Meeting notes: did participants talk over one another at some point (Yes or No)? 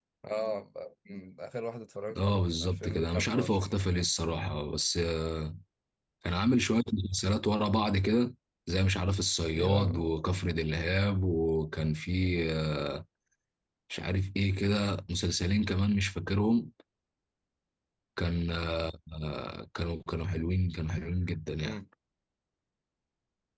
Yes